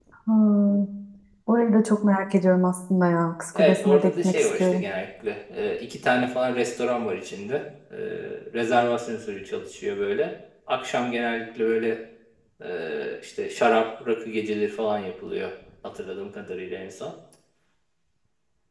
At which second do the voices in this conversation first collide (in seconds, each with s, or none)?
3.5 s